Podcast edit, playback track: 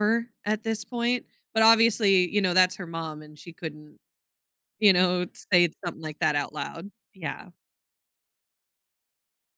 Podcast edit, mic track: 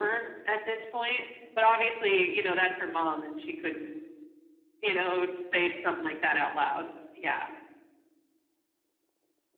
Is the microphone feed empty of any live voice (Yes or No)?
Yes